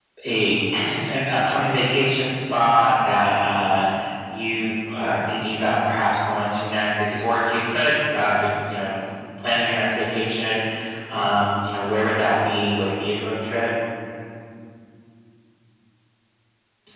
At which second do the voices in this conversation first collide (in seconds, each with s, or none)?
none